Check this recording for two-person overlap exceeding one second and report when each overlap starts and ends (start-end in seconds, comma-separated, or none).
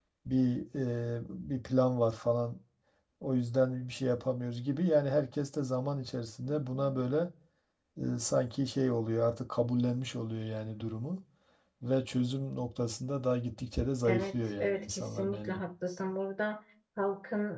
14.1-15.6